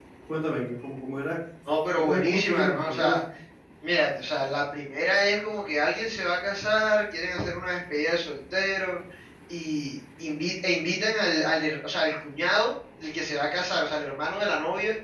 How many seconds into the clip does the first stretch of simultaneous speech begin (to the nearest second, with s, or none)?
2 s